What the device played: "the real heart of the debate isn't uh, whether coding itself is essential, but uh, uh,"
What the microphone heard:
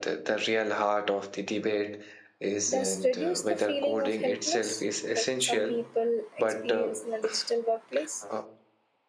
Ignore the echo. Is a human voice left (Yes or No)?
Yes